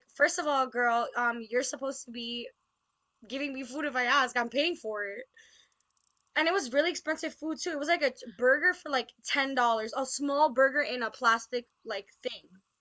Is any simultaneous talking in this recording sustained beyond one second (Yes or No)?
No